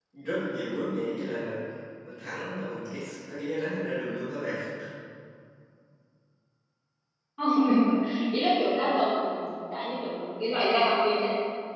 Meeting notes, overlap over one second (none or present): none